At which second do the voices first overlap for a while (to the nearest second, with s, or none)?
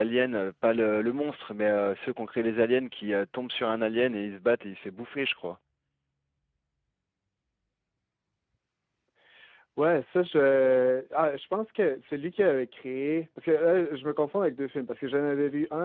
none